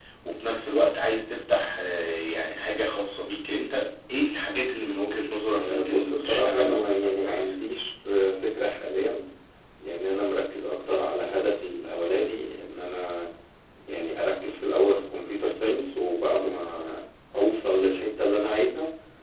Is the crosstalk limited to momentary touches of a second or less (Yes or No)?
No